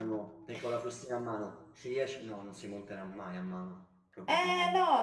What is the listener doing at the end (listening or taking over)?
taking over